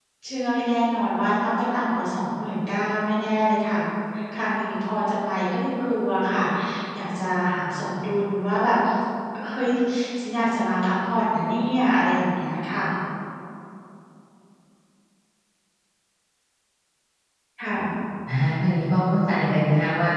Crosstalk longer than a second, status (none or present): none